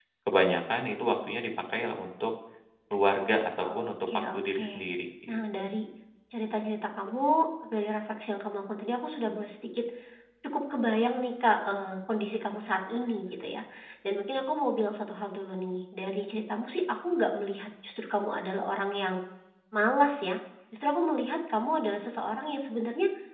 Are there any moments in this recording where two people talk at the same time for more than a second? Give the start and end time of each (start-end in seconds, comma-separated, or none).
3.6-4.8